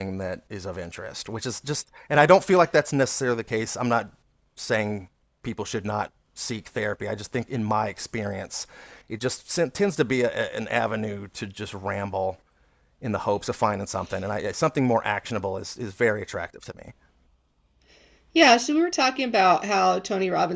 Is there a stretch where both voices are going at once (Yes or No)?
No